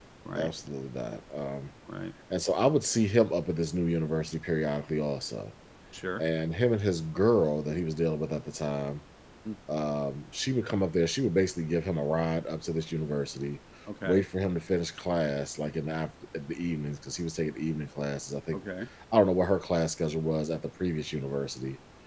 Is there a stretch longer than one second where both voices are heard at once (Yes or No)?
No